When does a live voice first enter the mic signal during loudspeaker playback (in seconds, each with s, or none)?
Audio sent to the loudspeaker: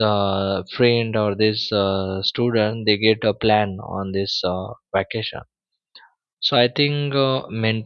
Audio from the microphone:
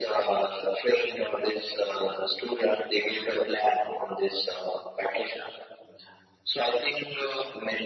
none